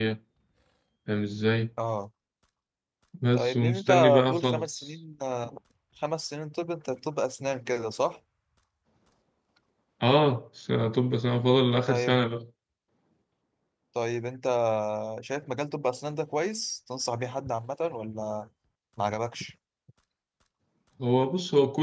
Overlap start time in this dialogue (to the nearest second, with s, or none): 3 s